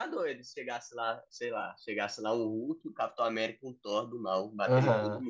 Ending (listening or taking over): taking over